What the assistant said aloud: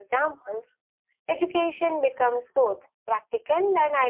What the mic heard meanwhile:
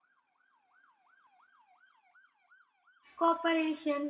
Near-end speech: present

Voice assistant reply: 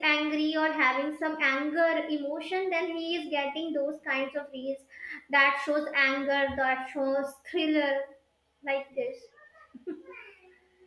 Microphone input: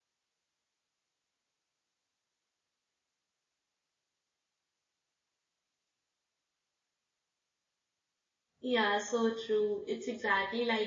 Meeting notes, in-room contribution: present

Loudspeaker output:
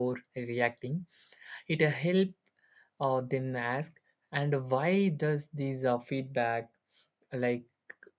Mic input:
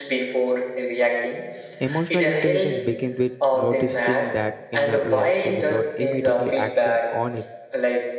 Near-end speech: present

